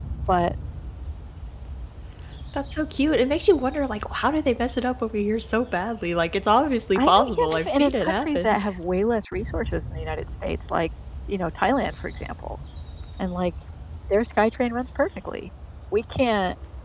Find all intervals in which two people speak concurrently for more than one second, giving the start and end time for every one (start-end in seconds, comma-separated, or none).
7.0-8.6